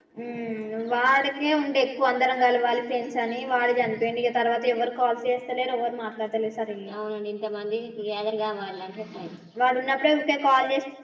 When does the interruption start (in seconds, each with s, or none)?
none